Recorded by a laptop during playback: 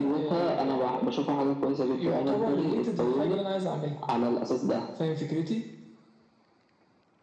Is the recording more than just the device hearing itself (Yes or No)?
No